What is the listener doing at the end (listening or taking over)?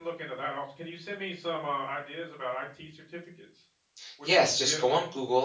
taking over